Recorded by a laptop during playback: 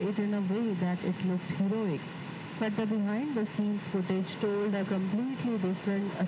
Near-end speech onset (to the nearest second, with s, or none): none